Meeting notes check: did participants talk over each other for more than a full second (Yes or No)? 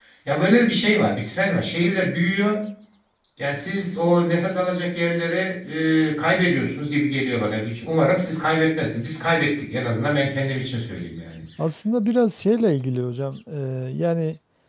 No